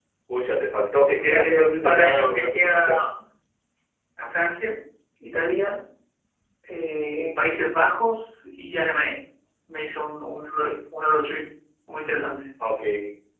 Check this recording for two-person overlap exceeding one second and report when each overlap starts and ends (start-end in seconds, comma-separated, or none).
1.1-3.0